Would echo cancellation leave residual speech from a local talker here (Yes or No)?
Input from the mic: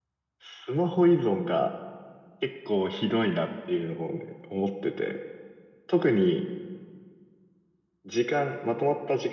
Yes